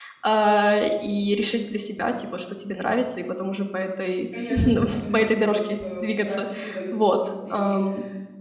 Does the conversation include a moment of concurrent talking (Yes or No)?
Yes